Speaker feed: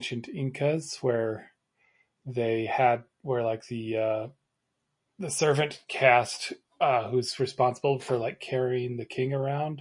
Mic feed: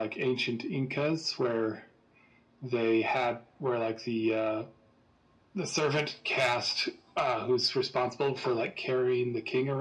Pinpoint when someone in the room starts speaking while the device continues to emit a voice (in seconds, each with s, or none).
none